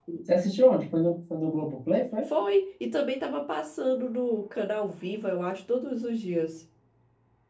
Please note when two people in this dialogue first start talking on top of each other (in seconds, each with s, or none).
none